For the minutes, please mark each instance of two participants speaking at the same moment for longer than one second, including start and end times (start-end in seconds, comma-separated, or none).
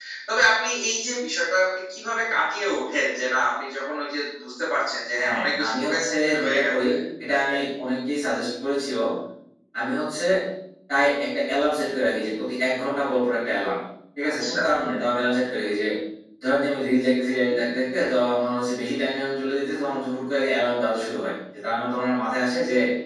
5.2-6.7